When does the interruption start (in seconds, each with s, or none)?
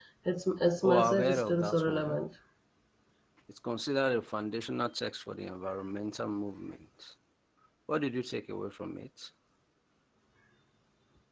0.8 s